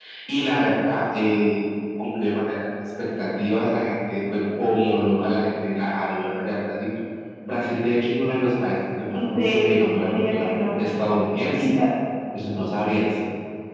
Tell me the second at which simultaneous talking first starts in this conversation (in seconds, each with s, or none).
9.1 s